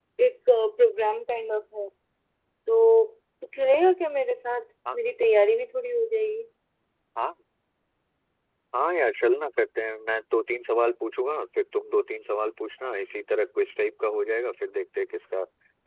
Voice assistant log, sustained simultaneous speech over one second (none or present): none